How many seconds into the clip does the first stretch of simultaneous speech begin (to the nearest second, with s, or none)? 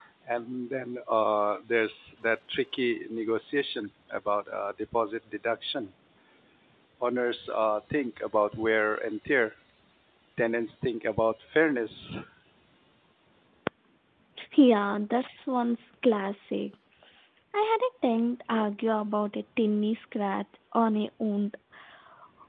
none